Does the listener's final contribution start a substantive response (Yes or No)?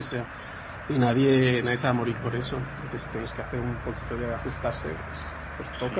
Yes